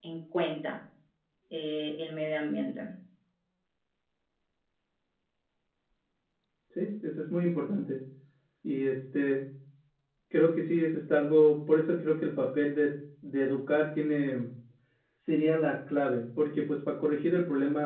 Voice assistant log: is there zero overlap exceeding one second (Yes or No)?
Yes